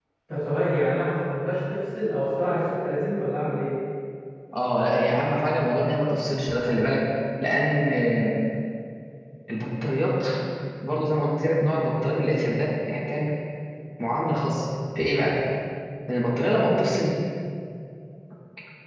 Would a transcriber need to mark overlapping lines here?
No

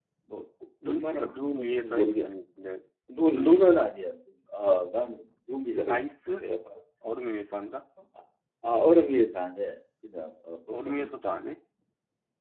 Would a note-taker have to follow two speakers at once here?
Yes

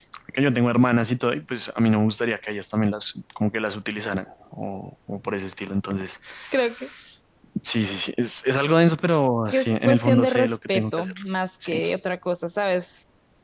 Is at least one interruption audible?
Yes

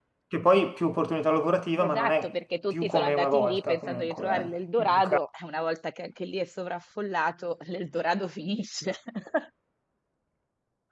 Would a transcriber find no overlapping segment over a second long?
No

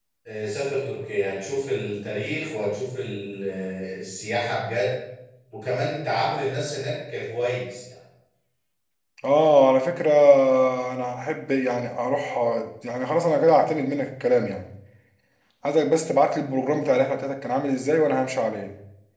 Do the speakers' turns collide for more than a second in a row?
No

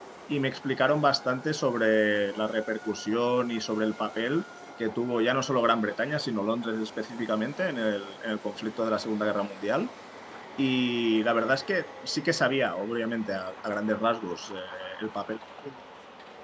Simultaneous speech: No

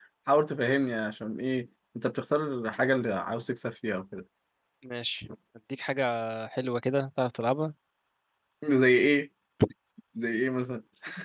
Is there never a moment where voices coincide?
Yes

